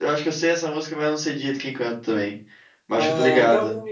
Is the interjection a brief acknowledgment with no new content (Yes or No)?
No